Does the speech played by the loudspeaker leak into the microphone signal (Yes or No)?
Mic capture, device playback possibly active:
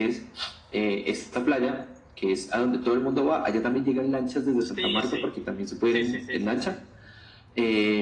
Yes